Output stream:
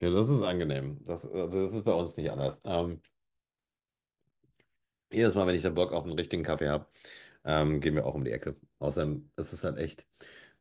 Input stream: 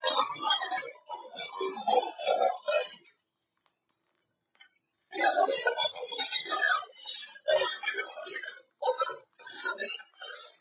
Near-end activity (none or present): none